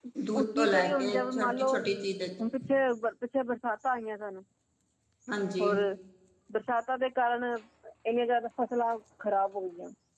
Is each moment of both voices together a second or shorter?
No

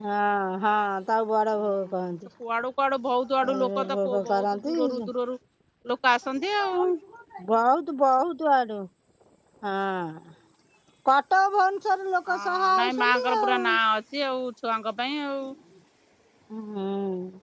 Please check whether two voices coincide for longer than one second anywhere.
Yes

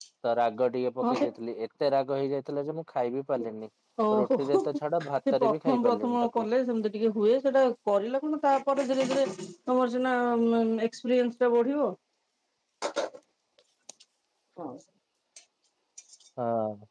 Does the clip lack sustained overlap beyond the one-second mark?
No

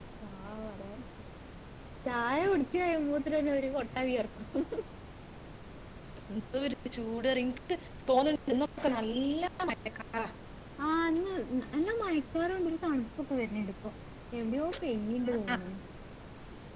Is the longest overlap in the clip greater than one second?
No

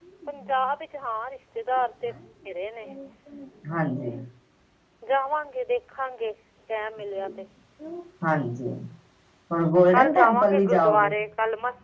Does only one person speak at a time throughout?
No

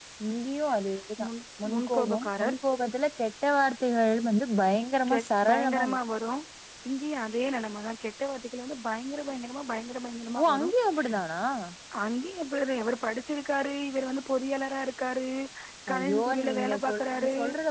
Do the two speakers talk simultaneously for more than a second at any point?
Yes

